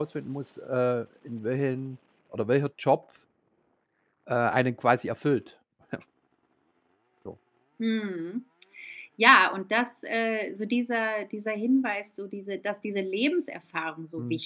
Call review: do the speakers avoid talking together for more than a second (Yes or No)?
Yes